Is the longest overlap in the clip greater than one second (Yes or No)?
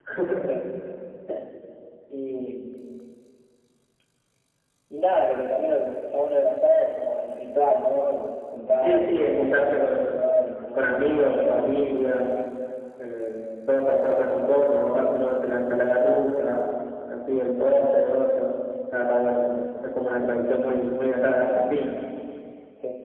Yes